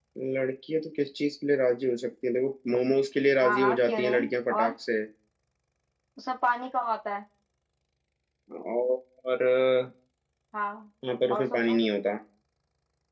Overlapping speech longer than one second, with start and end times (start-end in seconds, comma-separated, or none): 3.4-4.7